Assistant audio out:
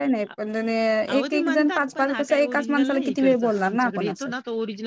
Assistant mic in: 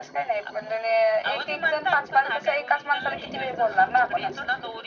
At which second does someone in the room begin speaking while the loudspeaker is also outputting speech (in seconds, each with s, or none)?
none